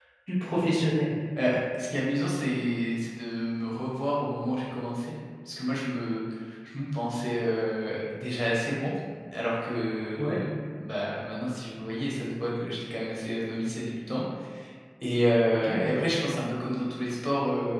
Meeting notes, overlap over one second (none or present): none